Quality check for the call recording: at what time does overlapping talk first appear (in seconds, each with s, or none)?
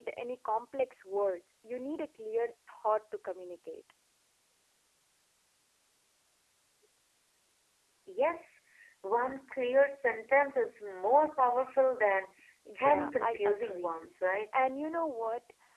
12.8 s